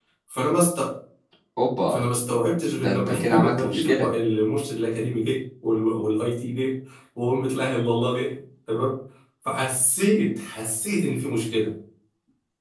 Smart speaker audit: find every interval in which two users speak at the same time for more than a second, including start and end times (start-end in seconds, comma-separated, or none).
2.8-4.1